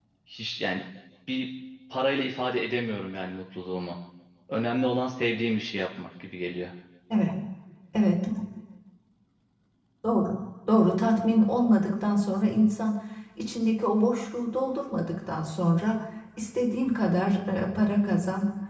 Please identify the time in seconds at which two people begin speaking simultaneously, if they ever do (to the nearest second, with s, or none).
none